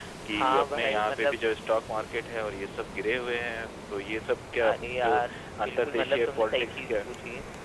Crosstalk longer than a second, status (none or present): present